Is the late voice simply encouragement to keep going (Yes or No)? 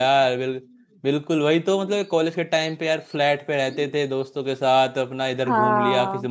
Yes